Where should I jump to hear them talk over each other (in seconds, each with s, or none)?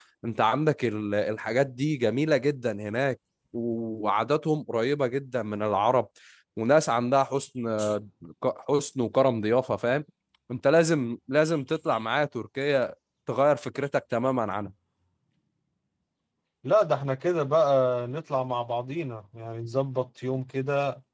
none